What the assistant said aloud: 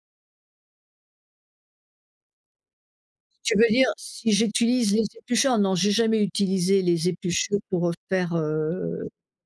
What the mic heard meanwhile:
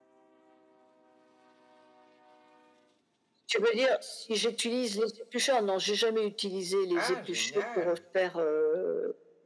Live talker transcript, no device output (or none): Ah, génial!